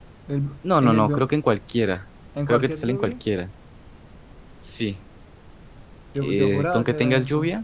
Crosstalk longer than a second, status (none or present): present